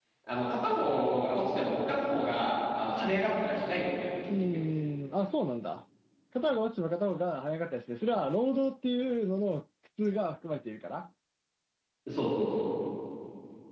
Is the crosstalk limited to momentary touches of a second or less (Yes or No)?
Yes